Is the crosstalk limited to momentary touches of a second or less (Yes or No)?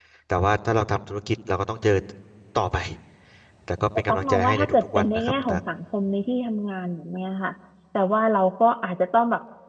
No